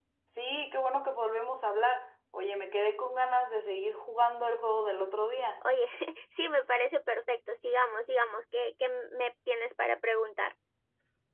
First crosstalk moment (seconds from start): none

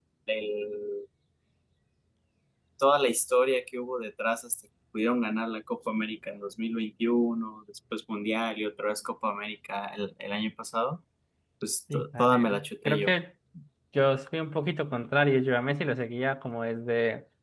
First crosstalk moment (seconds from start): 11.9 s

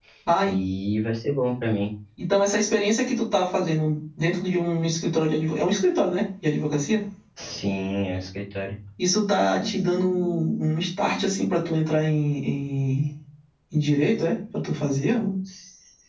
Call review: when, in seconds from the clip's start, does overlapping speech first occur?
none

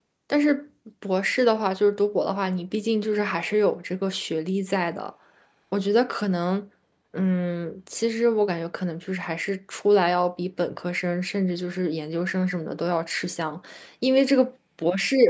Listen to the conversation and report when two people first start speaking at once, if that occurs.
none

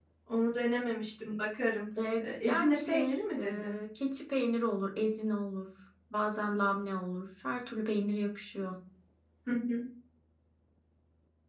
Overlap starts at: 2.2 s

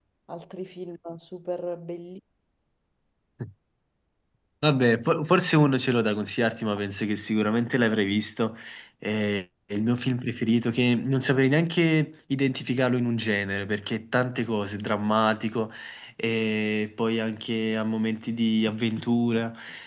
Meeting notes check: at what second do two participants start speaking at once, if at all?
none

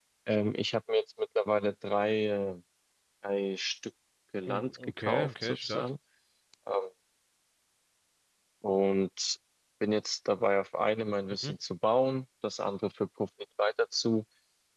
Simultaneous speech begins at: 4.5 s

